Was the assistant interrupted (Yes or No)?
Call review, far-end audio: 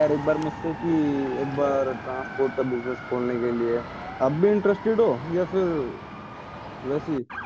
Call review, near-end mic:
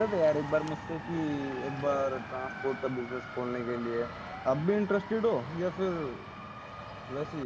No